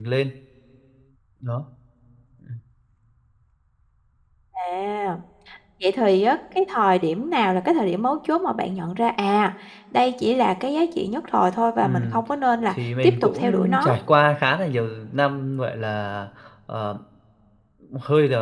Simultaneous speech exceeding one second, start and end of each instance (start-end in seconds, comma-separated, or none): 12.7-13.9